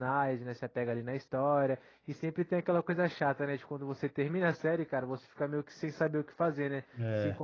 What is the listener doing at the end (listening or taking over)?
listening